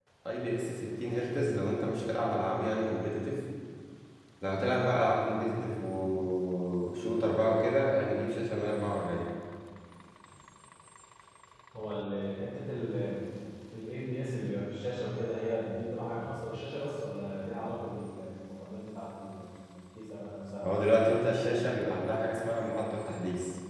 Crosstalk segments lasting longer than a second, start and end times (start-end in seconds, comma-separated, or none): none